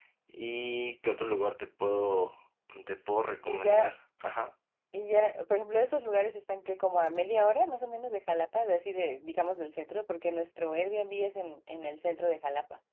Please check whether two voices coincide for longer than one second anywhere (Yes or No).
No